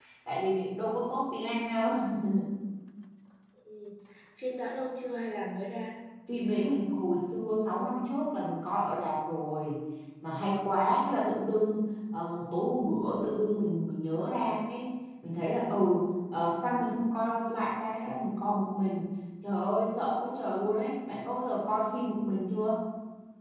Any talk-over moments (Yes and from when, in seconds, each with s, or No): No